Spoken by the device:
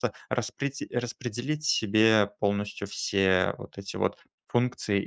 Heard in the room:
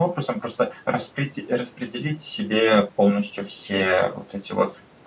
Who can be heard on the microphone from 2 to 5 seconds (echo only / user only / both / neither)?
echo only